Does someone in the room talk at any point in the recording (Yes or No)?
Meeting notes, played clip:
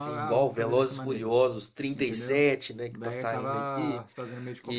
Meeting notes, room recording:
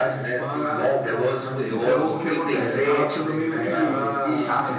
Yes